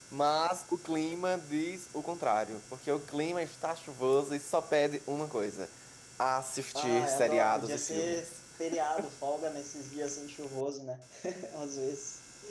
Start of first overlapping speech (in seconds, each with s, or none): 6.8 s